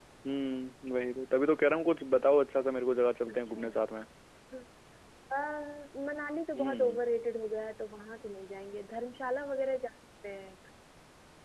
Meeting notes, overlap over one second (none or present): none